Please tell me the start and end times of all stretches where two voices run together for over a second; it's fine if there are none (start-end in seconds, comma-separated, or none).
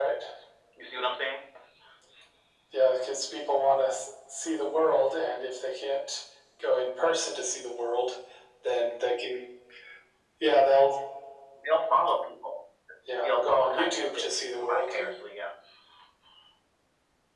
13.2-15.0